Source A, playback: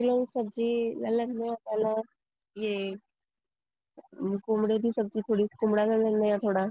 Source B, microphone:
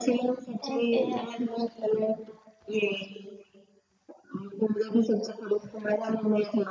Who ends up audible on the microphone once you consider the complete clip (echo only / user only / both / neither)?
both